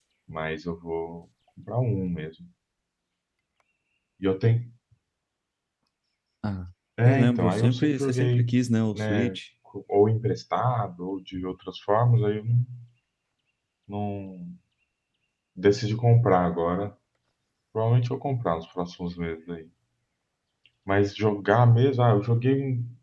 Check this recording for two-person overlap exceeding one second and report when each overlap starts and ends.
7.0-8.5

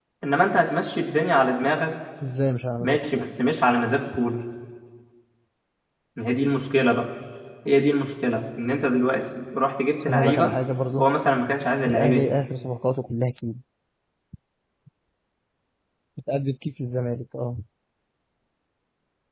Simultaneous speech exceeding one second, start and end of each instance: none

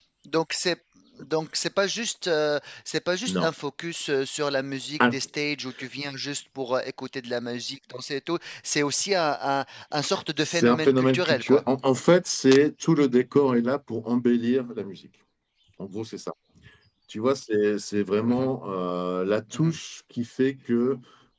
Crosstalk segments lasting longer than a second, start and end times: 10.4-11.7

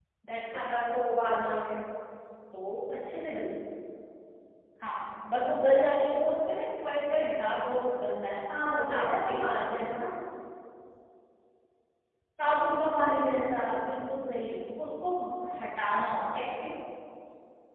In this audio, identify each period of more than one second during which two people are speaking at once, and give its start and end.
8.6-9.8

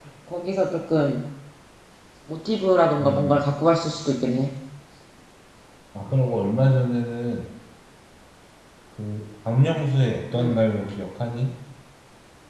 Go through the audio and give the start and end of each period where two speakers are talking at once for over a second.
none

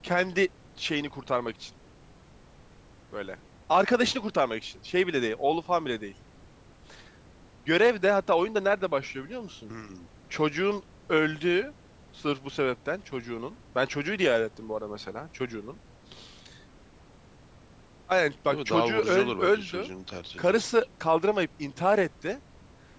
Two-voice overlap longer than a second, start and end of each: 18.5-19.9

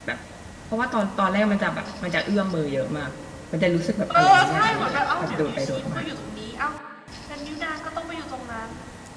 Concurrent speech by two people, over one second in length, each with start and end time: 4.2-6.0

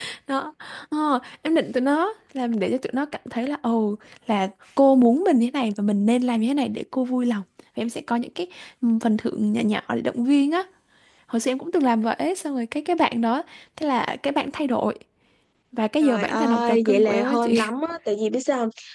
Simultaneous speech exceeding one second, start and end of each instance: 16.0-17.5

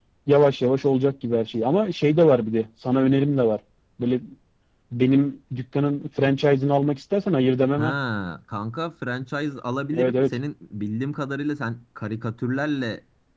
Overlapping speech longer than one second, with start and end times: none

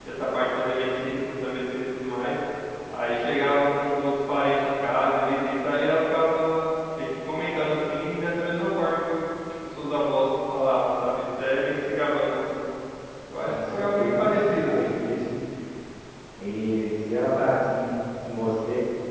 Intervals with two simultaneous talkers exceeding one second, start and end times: 13.5-15.0

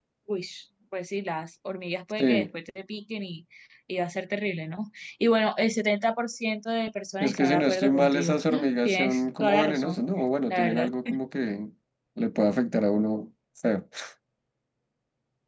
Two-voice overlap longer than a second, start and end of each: 7.2-10.0

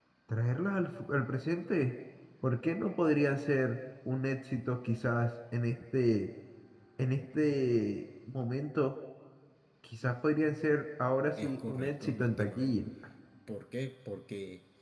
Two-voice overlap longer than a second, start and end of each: 11.4-12.7

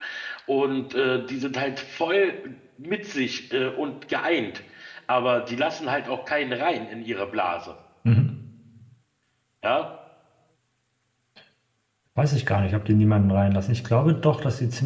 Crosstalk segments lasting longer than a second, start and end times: none

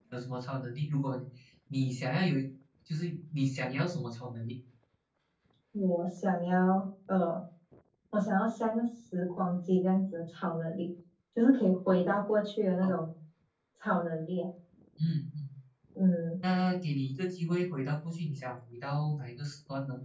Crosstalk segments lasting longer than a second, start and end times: none

